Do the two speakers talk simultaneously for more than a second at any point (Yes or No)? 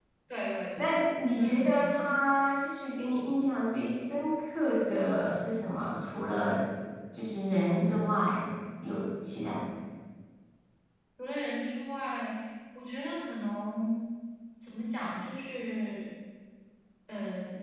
No